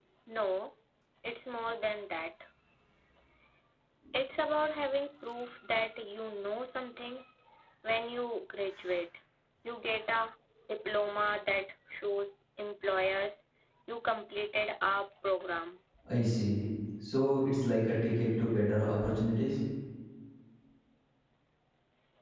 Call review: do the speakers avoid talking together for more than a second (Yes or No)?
Yes